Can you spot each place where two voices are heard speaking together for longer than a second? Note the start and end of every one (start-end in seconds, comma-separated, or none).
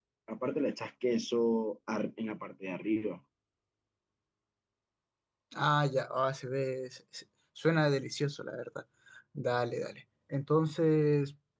none